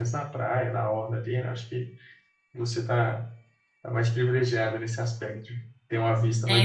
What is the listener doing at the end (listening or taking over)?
taking over